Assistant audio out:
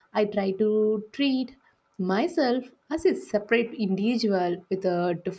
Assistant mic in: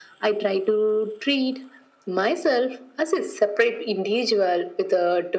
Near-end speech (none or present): none